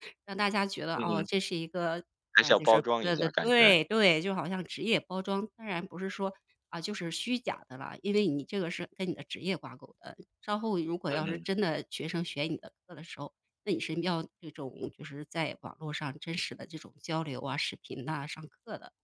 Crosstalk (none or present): present